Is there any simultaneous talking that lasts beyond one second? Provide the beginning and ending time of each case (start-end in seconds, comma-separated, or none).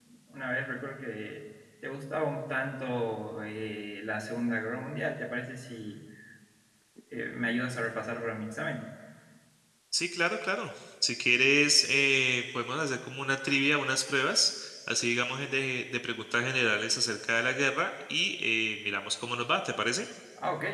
none